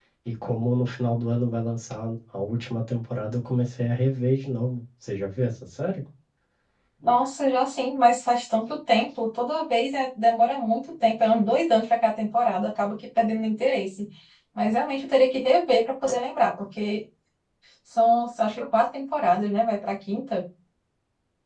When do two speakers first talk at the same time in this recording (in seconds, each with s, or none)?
none